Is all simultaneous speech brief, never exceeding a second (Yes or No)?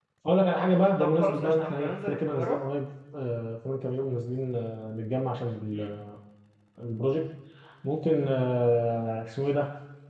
No